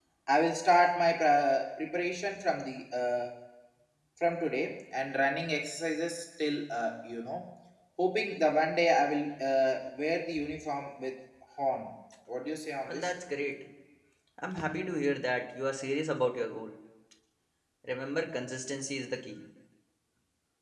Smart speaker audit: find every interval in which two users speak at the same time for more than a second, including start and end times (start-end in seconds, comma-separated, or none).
none